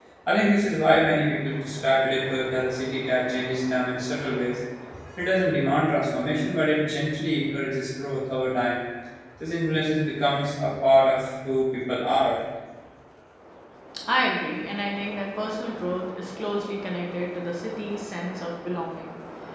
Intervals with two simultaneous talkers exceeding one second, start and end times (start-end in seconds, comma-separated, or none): none